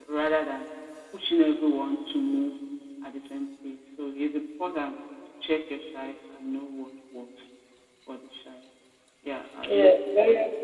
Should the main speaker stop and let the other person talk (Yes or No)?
Yes